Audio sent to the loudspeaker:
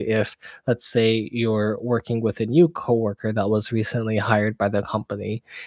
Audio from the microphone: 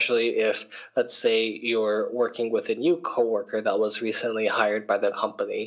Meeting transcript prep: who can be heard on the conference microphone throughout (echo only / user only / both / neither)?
echo only